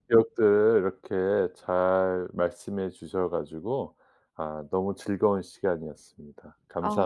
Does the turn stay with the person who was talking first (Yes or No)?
No